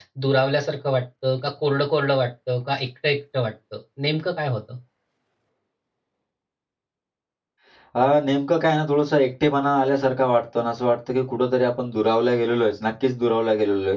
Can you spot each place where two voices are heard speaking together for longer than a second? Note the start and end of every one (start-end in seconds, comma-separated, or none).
none